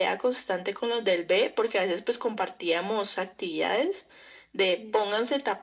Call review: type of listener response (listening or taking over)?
listening